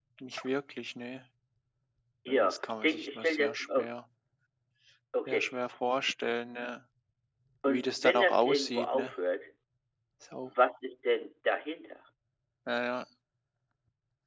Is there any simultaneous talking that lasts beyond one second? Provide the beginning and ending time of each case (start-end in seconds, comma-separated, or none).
2.3-3.8, 7.7-9.1